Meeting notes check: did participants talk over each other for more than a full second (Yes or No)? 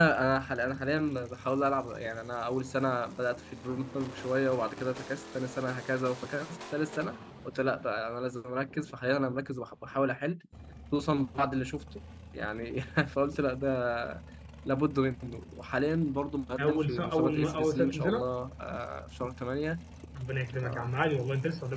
Yes